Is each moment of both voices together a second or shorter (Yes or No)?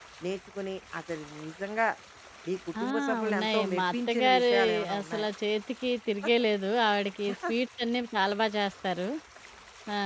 No